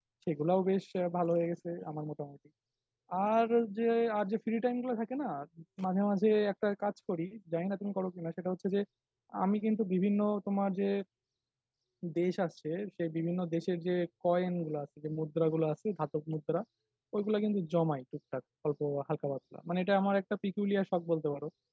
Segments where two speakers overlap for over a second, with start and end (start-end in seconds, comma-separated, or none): none